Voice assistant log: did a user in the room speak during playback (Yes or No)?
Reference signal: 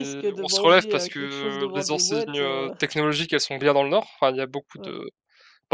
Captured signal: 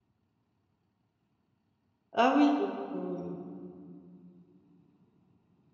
Yes